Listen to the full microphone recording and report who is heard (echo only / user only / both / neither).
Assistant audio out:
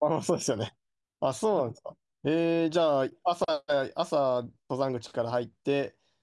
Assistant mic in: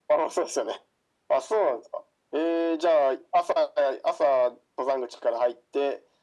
echo only